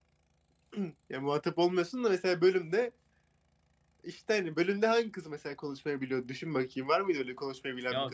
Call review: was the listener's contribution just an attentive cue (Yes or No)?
No